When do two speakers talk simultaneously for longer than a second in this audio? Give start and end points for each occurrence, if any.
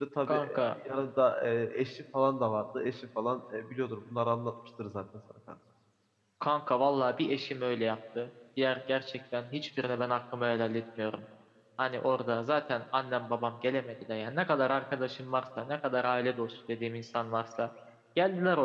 none

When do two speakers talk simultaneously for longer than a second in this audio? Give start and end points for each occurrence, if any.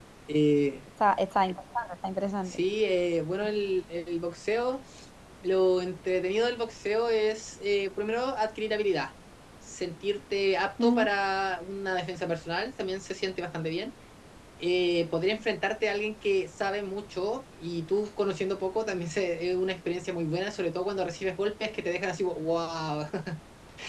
none

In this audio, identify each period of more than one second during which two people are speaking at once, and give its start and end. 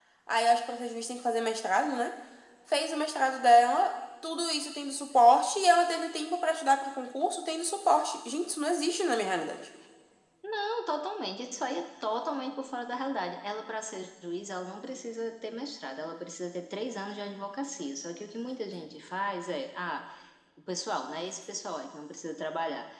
none

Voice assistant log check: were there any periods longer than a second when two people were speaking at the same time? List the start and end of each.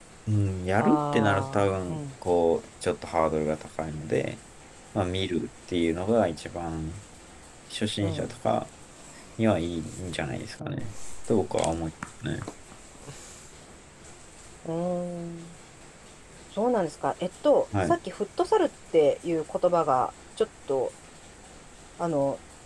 0.8-2.0

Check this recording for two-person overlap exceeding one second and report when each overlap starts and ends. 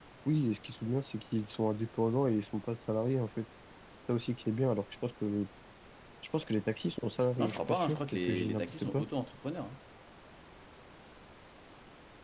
7.4-9.0

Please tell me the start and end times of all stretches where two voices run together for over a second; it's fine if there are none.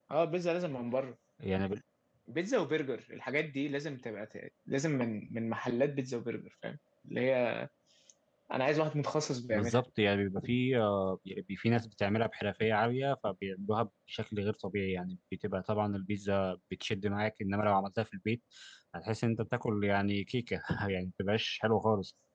none

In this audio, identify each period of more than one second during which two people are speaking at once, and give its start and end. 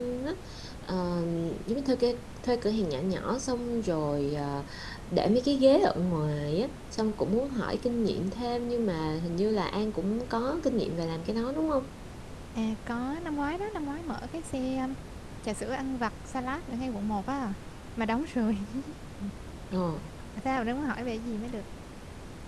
none

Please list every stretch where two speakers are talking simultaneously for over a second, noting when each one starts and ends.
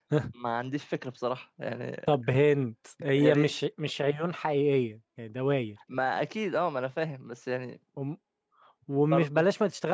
none

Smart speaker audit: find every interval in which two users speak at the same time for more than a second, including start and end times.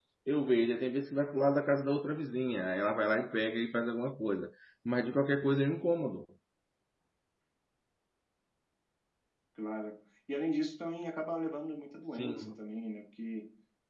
none

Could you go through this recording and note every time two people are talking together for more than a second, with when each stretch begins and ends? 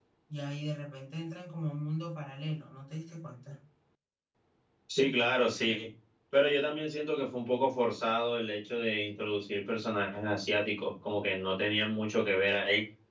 none

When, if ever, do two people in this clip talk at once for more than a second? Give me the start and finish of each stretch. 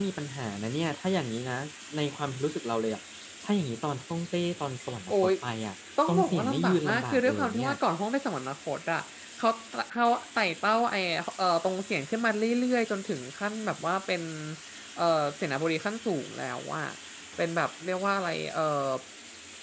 6.1-7.7

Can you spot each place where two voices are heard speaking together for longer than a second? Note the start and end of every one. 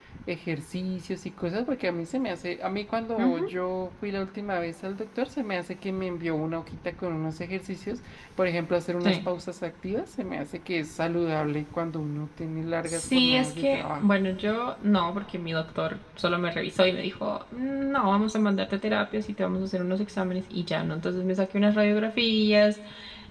12.8-14.1

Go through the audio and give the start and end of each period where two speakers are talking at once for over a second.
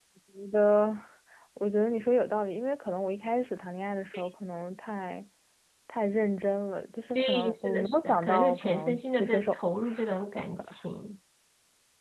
7.2-9.6

